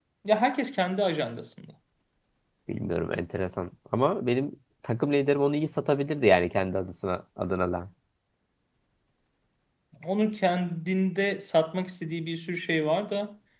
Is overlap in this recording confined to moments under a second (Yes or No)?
Yes